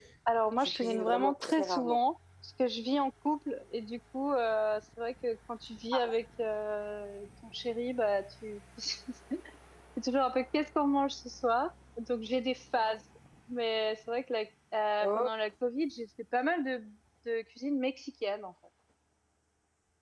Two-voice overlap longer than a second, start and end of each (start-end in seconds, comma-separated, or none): 0.6-2.0